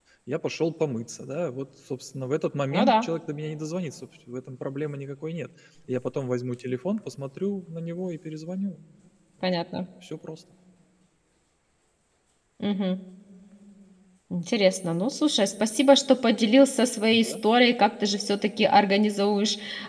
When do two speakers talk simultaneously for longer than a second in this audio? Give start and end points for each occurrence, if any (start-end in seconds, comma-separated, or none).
none